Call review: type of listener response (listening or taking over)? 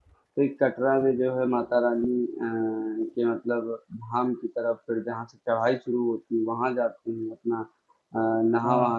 listening